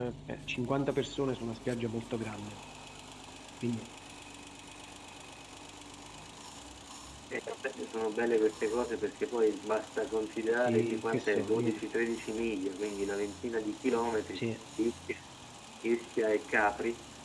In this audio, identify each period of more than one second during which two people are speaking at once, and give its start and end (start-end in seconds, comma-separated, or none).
10.6-11.8